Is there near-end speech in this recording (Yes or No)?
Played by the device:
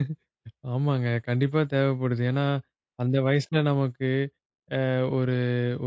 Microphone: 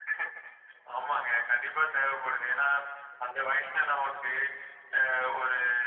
No